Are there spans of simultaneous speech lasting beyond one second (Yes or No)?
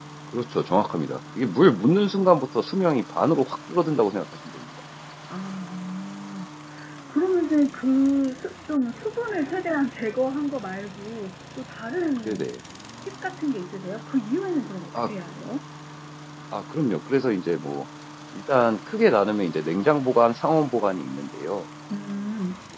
No